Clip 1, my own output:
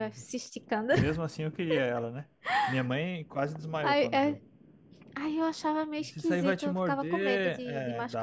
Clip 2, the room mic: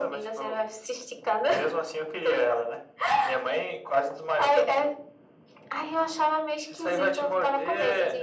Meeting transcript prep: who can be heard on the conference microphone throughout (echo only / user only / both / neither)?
echo only